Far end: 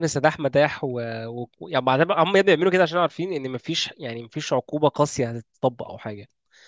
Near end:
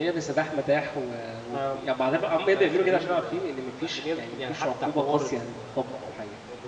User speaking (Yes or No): Yes